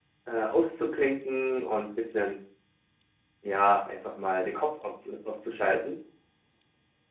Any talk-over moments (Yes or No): No